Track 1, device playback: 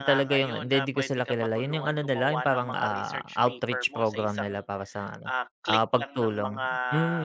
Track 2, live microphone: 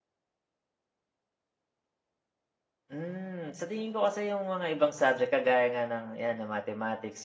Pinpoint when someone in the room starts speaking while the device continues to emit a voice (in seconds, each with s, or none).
2.9 s